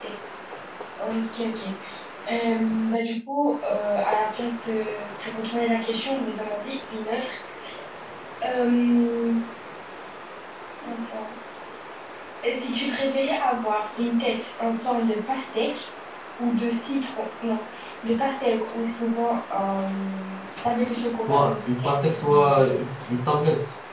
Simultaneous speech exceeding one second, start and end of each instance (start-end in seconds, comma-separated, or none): 21.3-22.8